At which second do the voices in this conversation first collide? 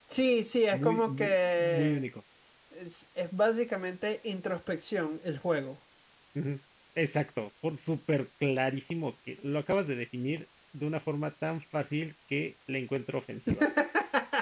0.7 s

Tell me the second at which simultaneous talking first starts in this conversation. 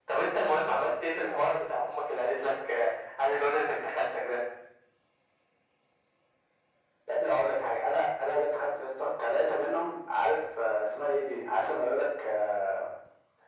none

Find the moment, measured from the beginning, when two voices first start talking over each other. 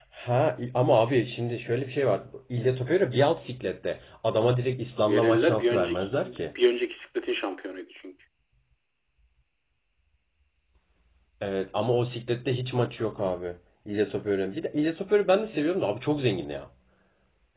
5.1 s

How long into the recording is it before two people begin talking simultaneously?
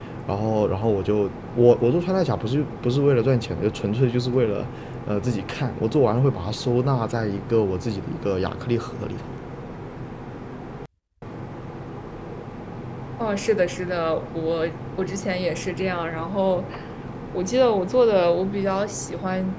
none

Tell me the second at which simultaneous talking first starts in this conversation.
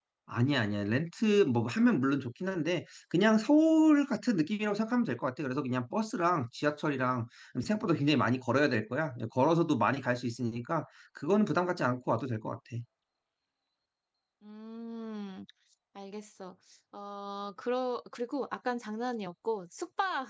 none

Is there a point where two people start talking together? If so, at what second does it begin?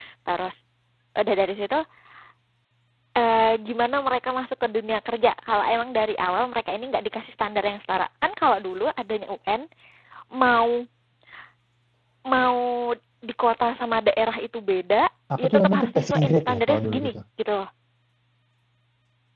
15.4 s

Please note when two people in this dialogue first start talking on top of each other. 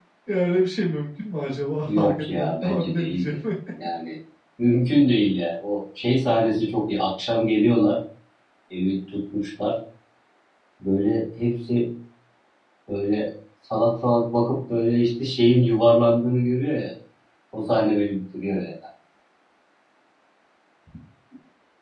1.9 s

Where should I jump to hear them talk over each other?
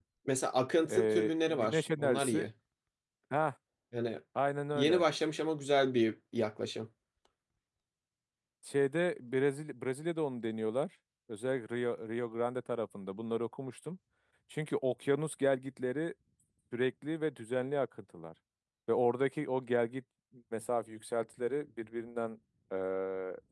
0.9 s

